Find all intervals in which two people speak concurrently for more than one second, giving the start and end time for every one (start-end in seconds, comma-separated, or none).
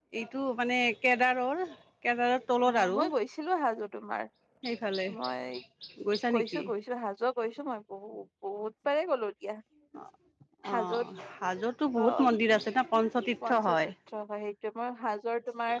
none